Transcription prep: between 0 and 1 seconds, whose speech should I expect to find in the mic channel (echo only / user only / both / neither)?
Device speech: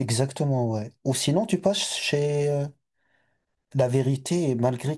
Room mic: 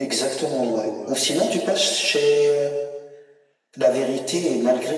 both